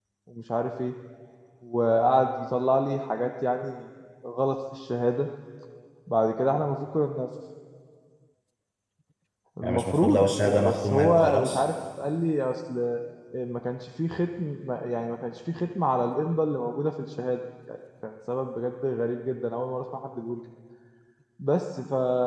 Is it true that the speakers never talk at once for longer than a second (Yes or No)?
No